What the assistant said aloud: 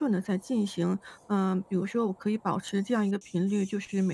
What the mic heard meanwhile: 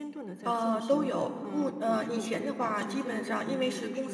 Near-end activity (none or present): present